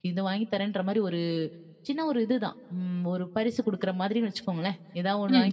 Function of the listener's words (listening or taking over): listening